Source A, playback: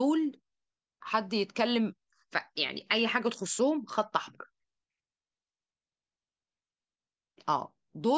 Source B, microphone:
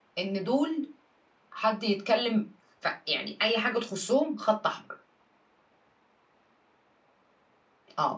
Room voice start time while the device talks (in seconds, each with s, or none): none